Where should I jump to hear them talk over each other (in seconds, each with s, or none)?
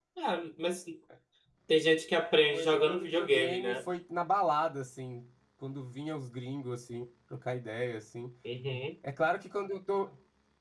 2.5 s